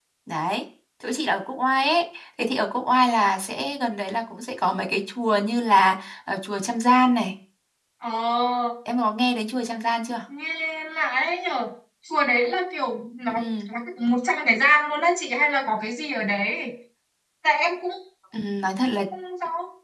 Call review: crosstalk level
none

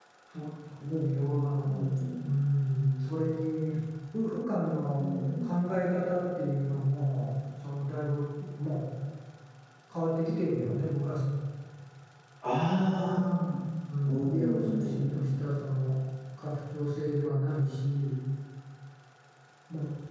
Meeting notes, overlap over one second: present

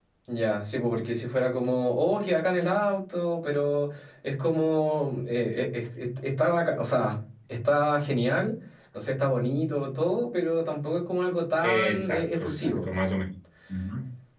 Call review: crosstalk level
present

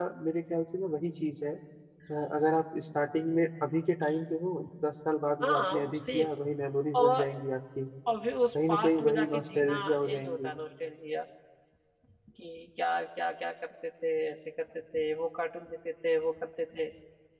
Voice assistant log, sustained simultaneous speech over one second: present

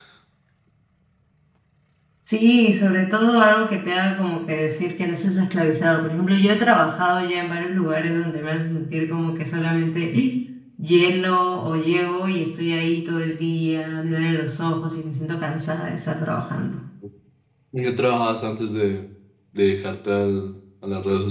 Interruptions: none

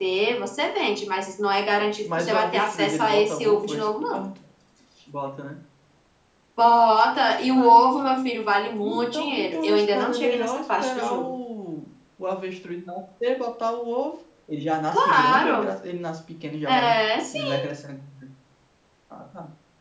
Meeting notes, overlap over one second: present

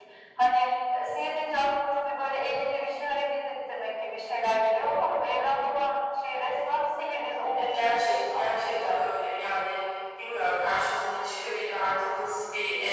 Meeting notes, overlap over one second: present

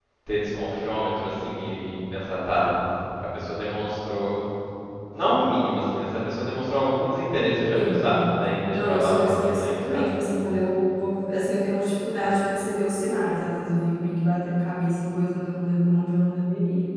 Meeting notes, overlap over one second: present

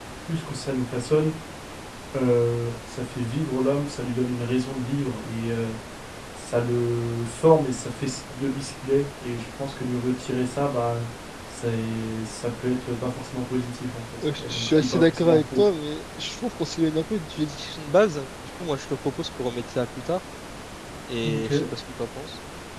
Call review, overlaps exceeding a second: present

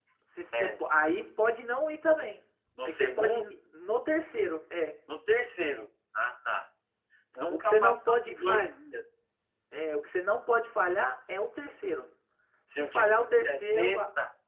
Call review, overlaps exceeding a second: present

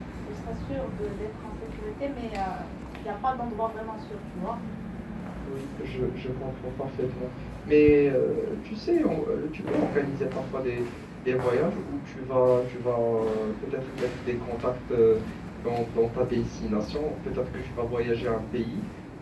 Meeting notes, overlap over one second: none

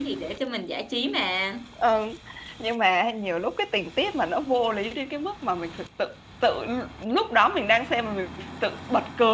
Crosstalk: none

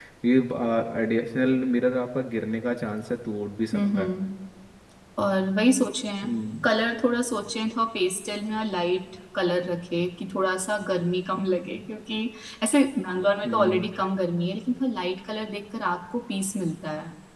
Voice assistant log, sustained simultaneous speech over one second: none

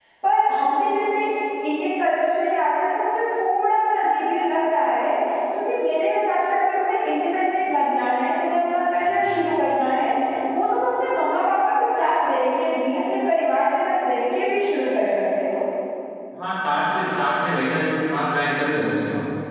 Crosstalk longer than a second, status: none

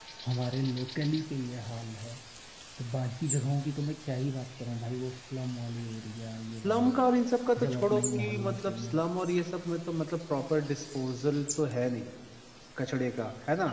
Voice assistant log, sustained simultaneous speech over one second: present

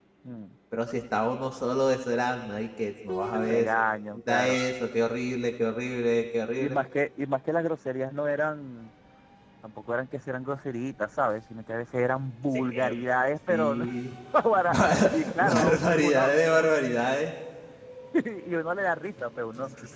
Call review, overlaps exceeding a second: present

